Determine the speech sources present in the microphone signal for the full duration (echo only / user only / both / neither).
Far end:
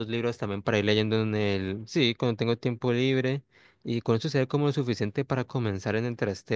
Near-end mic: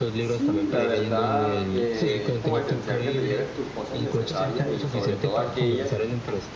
both